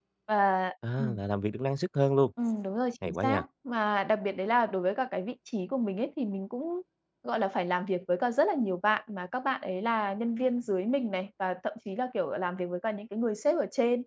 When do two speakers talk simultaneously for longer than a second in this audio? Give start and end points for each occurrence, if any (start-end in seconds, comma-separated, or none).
none